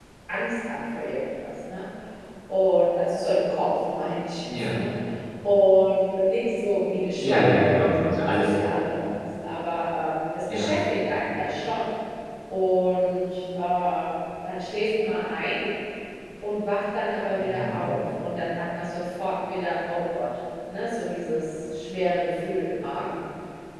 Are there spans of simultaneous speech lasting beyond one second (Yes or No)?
Yes